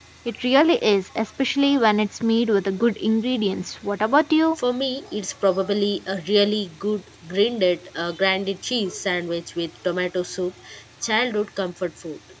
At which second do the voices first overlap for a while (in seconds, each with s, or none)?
none